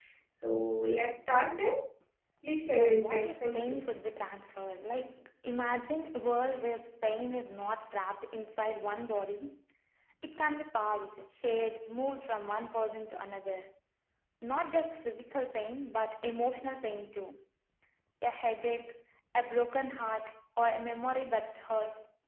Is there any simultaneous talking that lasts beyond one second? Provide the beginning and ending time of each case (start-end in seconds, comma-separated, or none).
2.7-3.9